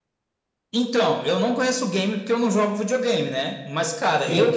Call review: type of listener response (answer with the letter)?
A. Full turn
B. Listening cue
B